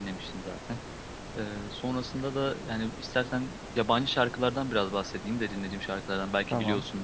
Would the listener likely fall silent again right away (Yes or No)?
Yes